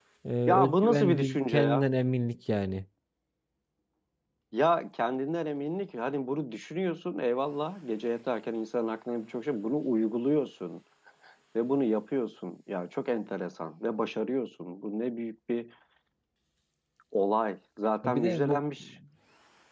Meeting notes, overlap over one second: present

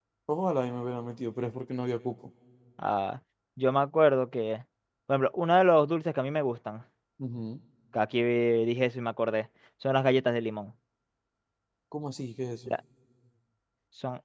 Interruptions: none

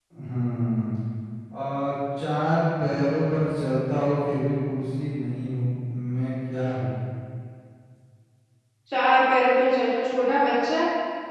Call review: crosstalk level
none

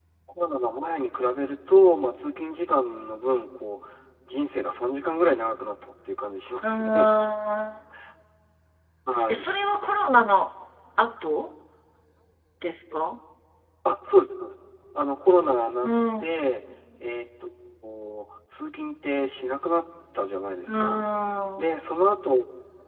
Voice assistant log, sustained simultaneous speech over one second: none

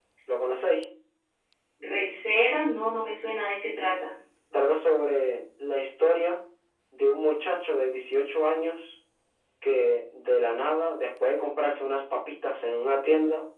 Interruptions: none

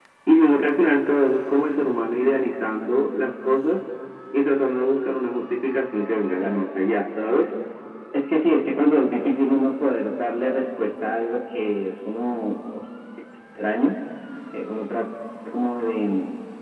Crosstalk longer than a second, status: none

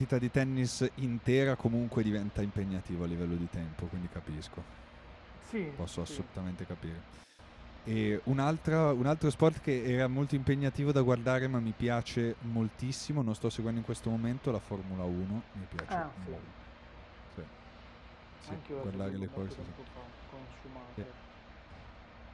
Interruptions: present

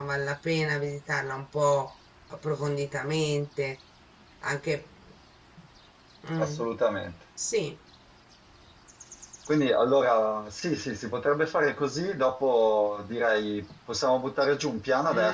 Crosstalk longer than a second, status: none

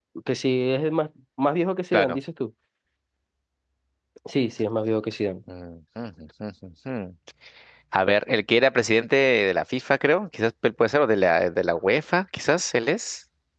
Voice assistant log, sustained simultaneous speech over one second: none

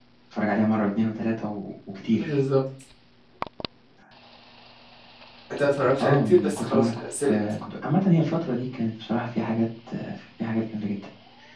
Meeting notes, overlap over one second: present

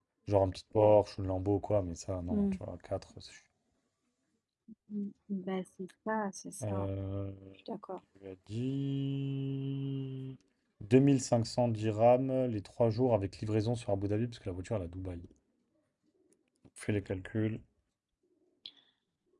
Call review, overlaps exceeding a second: none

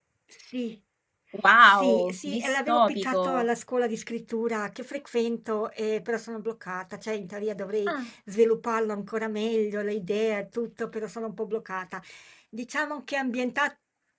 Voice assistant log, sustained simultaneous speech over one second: present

